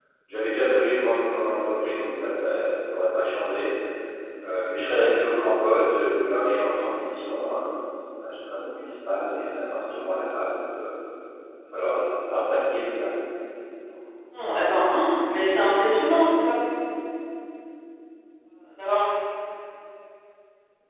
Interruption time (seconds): none

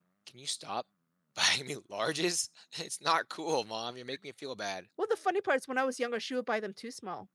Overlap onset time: none

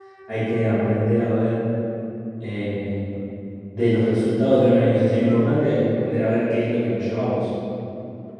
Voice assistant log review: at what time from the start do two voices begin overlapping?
none

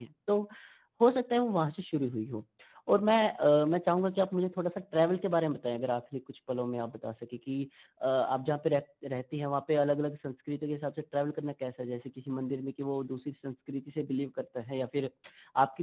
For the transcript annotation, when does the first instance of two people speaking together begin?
none

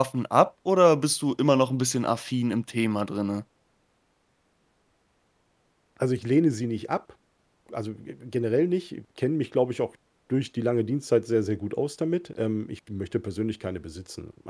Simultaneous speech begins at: none

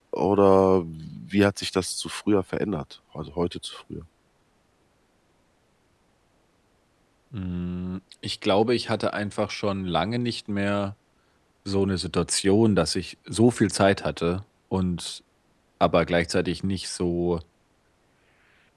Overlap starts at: none

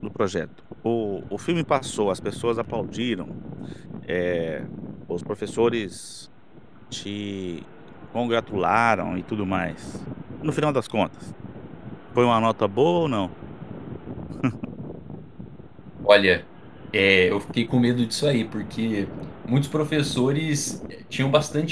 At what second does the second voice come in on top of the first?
none

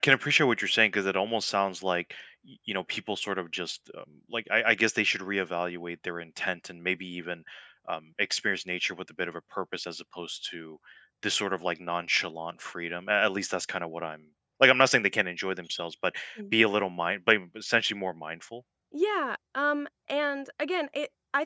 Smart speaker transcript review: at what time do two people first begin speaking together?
none

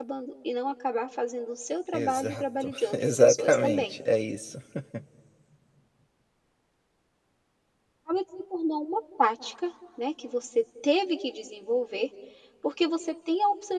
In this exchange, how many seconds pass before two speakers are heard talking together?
1.9 s

